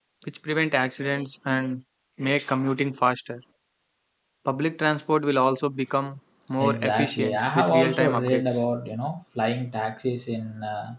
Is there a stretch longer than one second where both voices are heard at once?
Yes, from 6.6 s

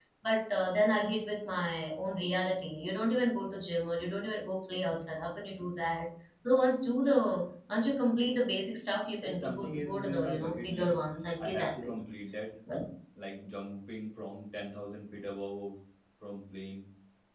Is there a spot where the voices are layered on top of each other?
Yes, from 9.2 s

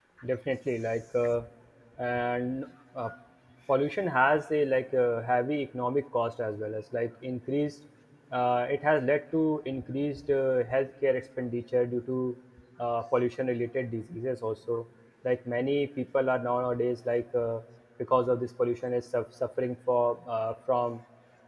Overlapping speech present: No

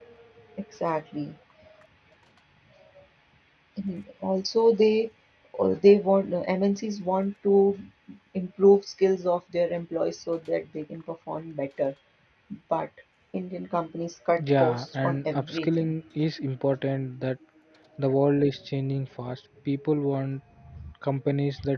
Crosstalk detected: Yes, from 14.4 s

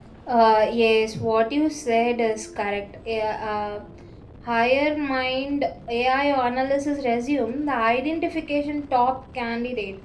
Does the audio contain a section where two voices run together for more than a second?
No

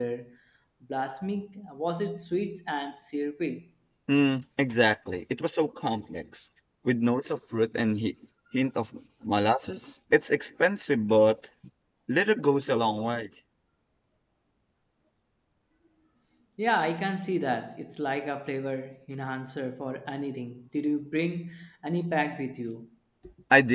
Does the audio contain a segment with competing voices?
No

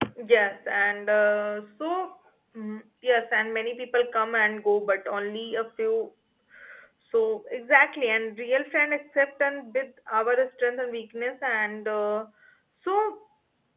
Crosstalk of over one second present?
No

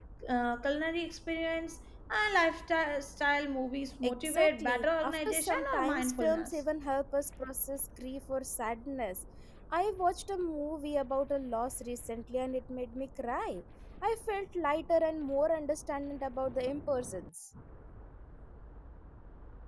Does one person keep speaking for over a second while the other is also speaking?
Yes, from 4.0 s

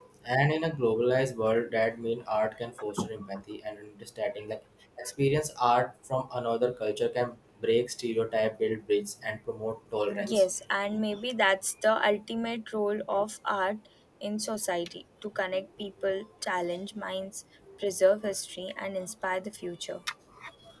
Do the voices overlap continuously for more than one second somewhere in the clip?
No

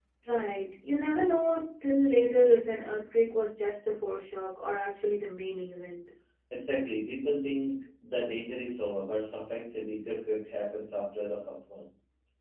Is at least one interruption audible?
No

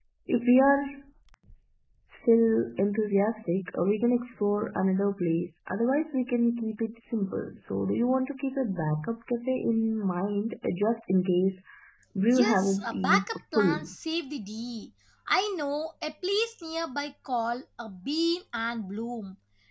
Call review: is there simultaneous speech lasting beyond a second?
Yes, from 12.3 s

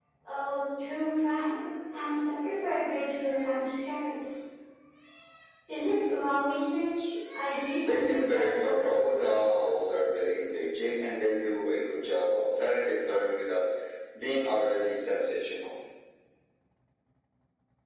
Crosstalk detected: Yes, from 7.9 s

